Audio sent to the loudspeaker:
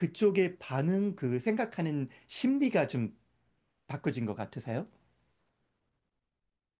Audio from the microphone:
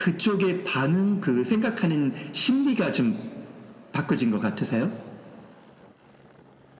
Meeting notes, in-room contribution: none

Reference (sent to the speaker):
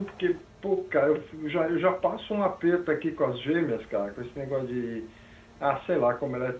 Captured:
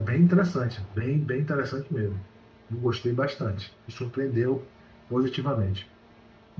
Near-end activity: present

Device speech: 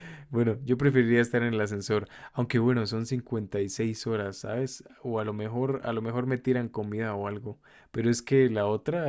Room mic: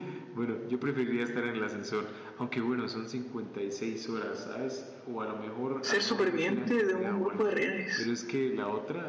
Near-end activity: present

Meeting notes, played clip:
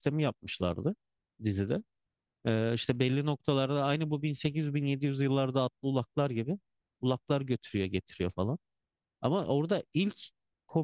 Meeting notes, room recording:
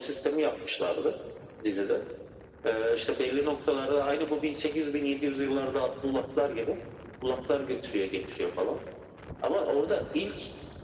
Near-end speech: none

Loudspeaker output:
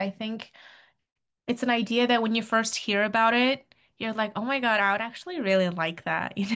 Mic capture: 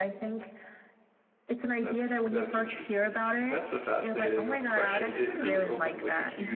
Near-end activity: present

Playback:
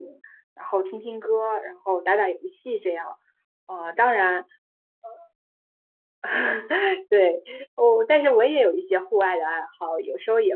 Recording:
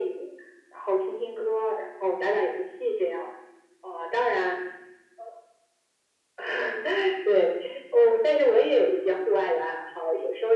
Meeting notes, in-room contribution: none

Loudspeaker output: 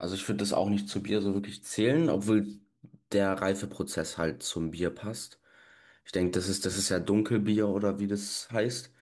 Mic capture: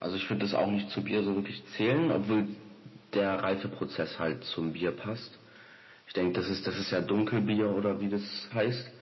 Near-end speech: none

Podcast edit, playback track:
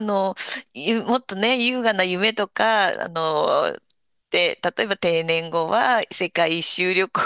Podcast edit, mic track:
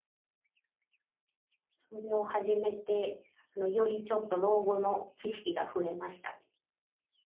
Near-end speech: present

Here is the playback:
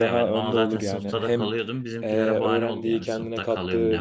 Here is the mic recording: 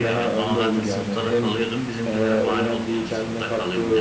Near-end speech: none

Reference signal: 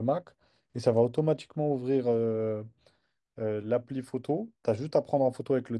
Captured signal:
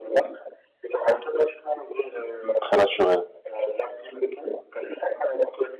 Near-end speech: present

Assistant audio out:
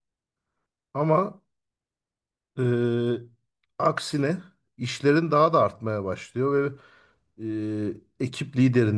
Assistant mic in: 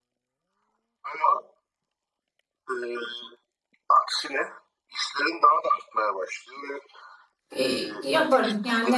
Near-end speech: present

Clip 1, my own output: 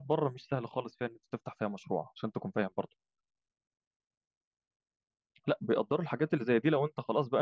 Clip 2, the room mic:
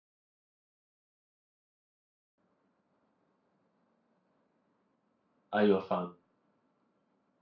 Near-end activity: present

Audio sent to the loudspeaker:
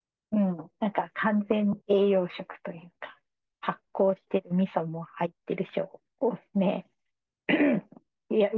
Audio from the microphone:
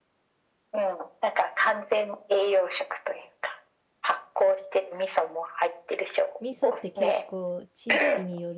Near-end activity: present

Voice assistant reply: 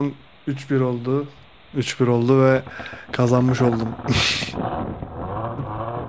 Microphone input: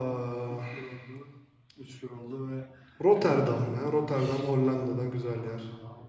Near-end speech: present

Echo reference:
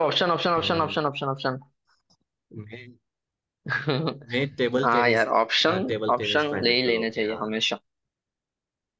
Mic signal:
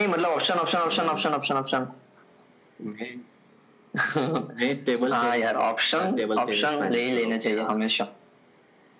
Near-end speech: none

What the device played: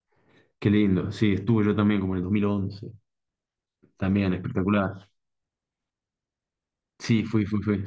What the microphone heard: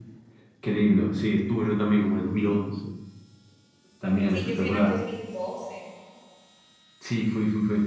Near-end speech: present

